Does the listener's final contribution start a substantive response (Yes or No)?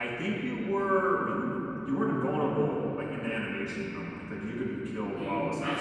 Yes